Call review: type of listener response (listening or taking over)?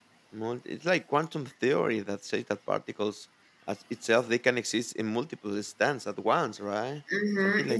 taking over